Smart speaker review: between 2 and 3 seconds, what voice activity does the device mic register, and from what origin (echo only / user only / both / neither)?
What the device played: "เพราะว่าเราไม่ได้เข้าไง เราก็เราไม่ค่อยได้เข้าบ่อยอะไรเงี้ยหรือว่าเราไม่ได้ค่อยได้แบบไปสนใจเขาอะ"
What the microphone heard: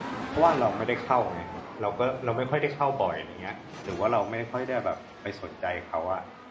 echo only